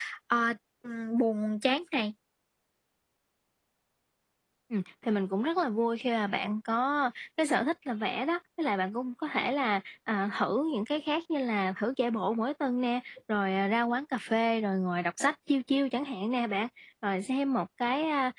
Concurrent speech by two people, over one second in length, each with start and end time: none

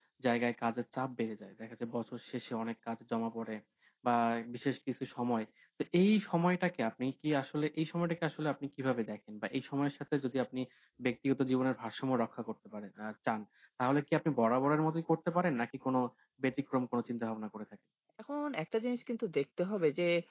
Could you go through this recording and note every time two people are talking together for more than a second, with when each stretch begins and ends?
none

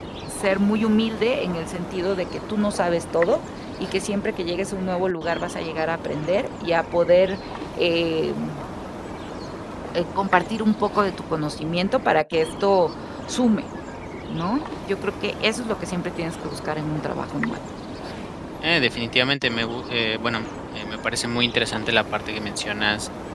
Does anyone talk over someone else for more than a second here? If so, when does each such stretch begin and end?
none

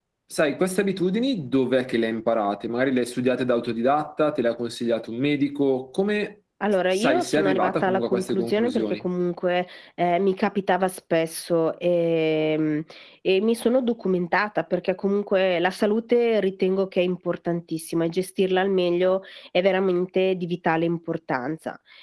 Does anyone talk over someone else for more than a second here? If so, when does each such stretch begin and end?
6.9-9.1

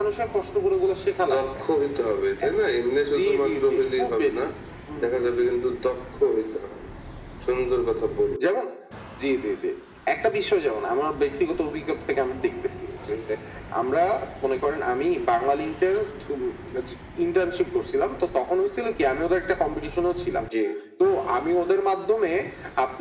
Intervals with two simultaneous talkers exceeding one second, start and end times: 3.1-4.4

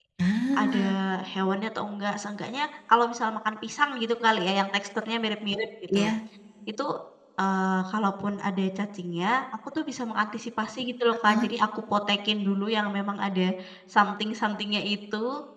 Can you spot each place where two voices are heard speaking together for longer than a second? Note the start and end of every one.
none

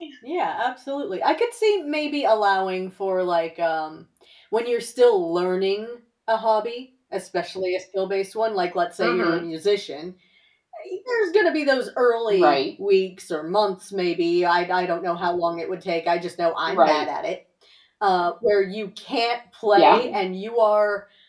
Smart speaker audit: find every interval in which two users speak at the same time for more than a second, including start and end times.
none

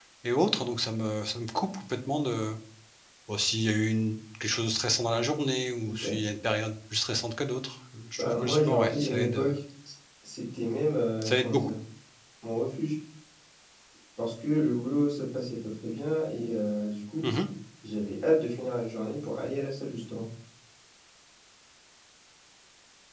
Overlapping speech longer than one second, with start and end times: 8.2-9.4

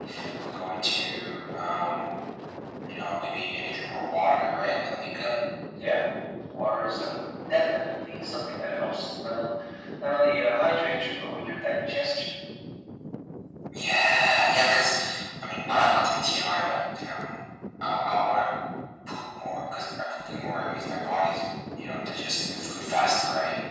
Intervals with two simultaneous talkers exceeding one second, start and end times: none

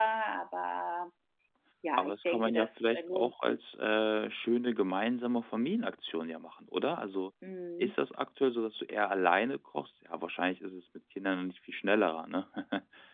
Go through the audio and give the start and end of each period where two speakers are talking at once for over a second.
2.0-3.6

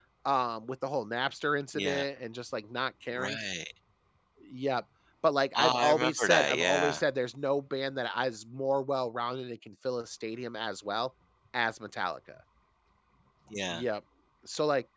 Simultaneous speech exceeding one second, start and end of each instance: 5.5-7.0

